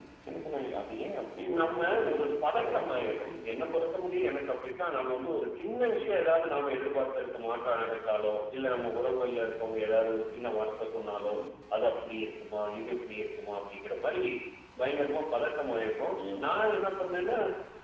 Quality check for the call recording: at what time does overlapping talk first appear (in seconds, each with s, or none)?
1.6 s